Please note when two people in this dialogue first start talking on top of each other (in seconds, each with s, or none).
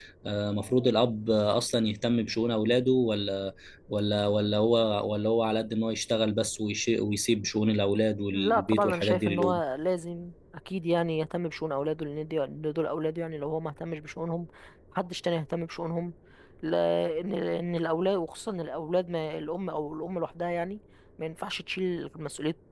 8.3 s